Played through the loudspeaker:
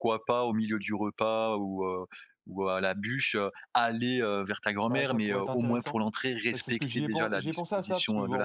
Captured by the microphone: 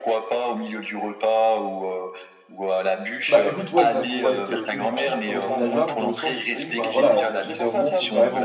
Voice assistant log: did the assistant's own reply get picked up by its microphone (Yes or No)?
Yes